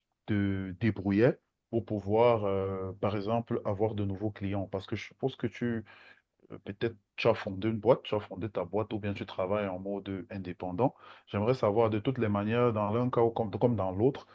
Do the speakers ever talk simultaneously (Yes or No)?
No